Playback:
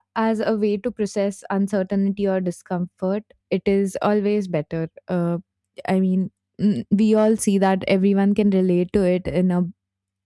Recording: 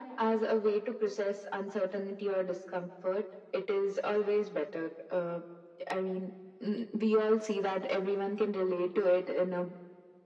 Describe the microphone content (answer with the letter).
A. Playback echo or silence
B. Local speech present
A